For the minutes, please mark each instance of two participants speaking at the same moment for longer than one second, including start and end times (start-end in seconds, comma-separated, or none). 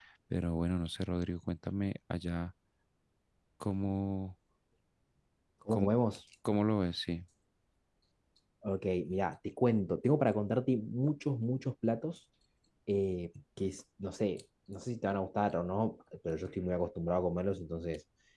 none